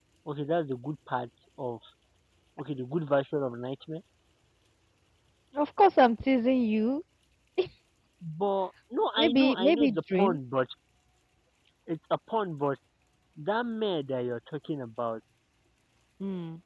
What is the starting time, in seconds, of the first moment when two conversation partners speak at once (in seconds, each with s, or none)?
9.2 s